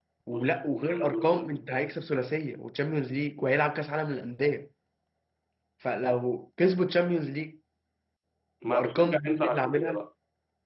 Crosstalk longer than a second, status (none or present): present